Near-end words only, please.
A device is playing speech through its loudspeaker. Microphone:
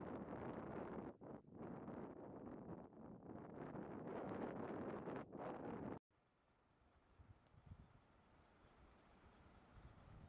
none

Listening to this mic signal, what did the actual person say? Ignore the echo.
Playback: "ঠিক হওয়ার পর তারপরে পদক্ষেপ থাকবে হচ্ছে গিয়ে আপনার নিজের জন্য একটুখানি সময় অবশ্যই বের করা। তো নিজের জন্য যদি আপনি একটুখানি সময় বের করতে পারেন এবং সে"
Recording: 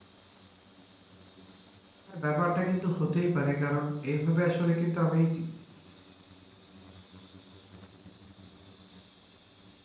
হ্যাঁ, ব্যাপারটা কিন্তু হতেই পারে। কারণ এইভাবে আসলে কিন্তু আমি এই চি

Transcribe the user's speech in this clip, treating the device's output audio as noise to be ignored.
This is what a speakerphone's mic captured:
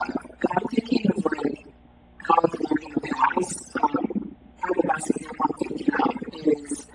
none

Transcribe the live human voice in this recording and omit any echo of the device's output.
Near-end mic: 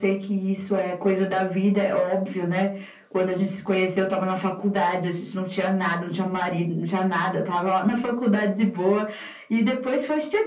none

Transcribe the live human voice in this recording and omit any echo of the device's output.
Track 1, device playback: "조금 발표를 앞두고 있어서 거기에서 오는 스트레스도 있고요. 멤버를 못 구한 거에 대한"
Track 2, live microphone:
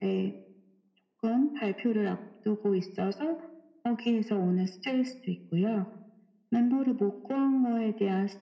none

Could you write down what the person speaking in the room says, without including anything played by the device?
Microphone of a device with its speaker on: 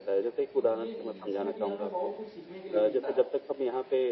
इ ये इसमें भी हमें बहुत कुछ सीखने के लिए मिलता है।

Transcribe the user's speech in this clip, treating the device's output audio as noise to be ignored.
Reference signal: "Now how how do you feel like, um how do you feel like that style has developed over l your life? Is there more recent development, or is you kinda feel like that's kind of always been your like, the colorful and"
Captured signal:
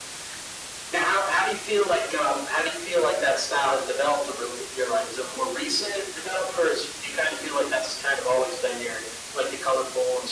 none

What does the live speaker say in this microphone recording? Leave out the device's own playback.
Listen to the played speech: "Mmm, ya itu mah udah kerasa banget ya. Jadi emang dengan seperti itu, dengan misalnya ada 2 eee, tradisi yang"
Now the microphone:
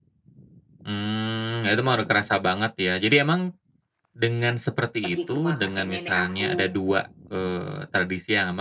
pergi ke rumah kakek nenek aku,

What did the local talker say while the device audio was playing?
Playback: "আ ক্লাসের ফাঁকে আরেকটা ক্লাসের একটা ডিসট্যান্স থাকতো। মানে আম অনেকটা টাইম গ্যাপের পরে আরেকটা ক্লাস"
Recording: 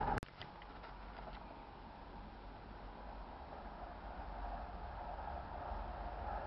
none

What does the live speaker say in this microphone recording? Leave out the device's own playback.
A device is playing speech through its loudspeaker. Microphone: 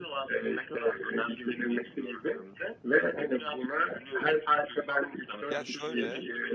Ya şöyle

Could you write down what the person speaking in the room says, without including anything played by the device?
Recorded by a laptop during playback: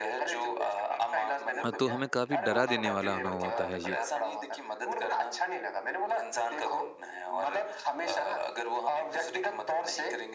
अ, तो हमें काफ़ी डरा देने वाला अनुभव होता है ये

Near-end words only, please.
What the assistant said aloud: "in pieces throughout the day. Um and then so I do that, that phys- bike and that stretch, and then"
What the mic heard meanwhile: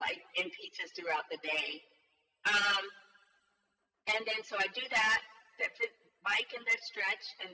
none

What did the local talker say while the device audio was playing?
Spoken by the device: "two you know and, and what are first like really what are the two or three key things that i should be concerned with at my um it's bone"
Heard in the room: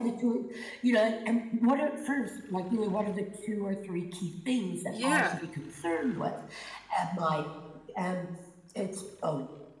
Yeah.

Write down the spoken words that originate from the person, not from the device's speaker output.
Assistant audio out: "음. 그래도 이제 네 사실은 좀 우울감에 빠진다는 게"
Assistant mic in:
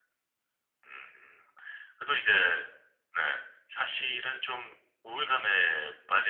none

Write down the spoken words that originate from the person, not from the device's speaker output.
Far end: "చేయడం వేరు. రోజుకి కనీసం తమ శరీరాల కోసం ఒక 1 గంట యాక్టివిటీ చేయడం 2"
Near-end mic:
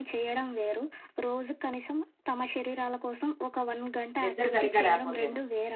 నిద్ర సరిగ్గా లేపోతేను.

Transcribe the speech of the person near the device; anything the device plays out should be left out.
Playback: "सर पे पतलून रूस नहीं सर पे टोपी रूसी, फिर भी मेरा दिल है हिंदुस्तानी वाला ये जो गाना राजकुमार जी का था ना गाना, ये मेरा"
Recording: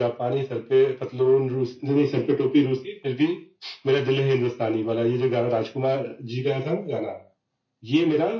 none

